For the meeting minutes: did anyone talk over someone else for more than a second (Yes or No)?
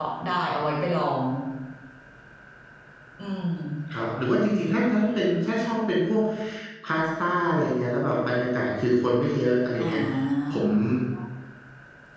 No